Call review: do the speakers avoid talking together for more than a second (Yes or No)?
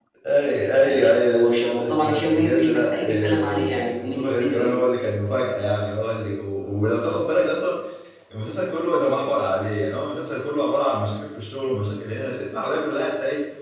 No